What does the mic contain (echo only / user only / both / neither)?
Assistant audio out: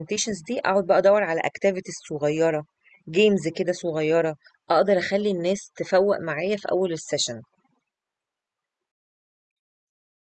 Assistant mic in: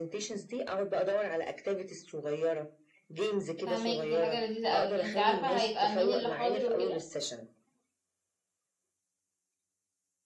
both